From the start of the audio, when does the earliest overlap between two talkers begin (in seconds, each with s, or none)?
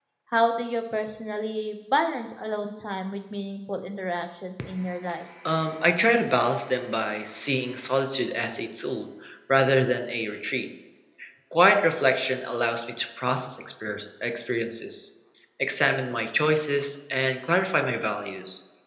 none